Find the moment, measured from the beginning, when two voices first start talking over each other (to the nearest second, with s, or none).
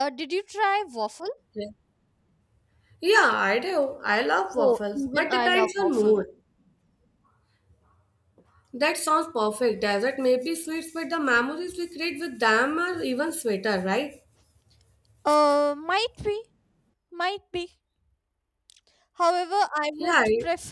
5 s